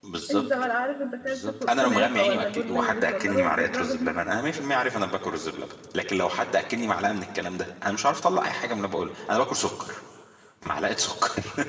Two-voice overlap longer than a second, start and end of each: 1.2-4.2

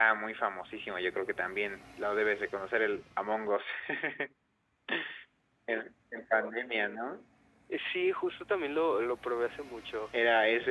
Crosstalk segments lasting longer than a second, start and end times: none

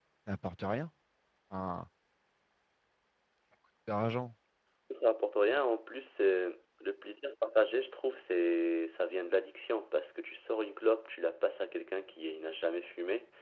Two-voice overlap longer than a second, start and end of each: none

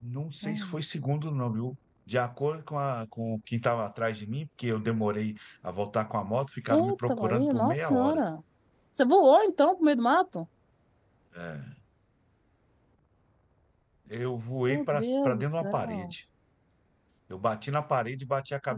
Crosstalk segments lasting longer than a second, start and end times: 6.7-8.2, 14.6-16.1

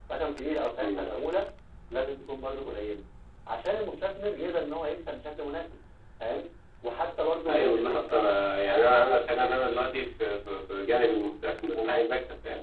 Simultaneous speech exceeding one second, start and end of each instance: none

